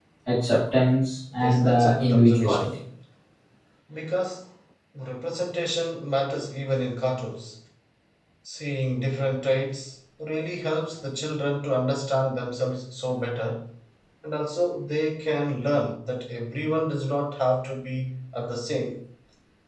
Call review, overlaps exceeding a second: present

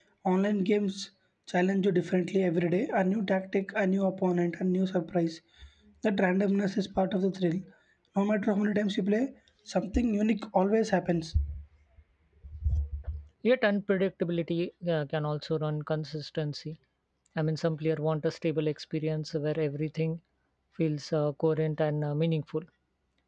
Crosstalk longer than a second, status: none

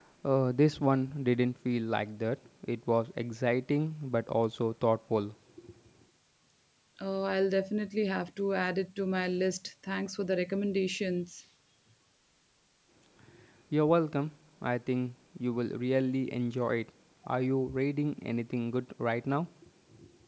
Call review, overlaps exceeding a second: none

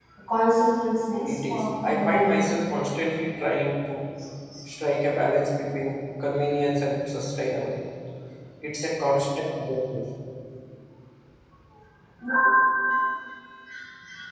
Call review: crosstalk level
present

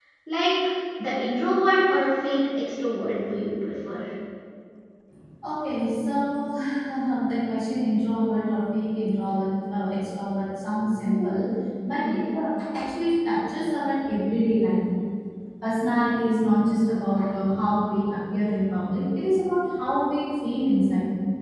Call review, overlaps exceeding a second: none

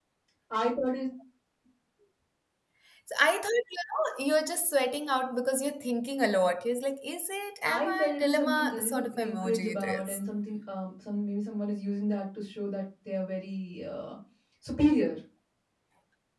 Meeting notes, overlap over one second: present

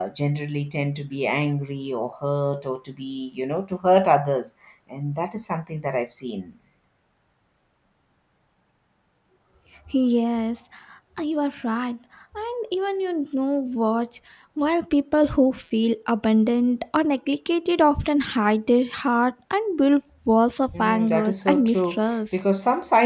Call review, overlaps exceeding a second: present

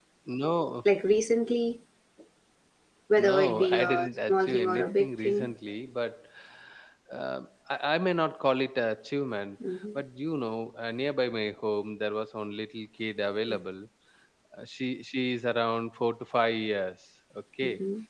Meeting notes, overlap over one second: present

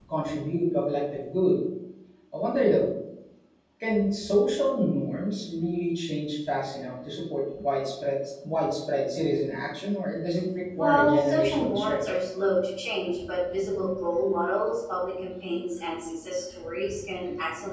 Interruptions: present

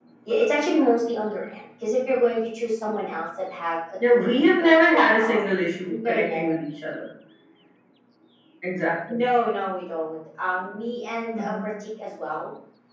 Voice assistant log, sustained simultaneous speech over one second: present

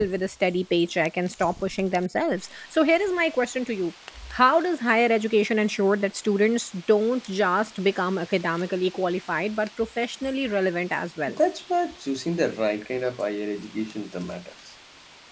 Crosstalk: none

